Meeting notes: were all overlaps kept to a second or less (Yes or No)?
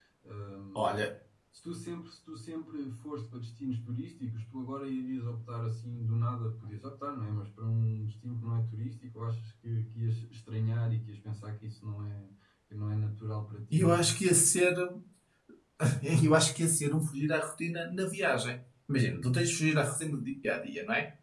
Yes